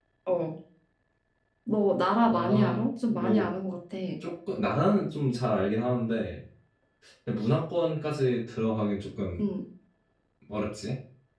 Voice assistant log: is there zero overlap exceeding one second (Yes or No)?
No